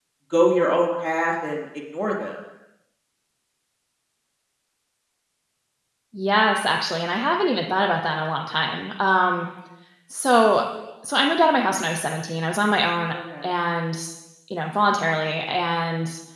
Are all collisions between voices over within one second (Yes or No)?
Yes